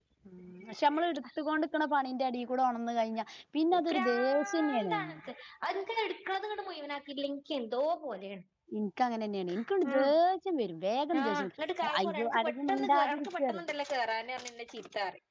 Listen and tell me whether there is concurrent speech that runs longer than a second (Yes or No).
Yes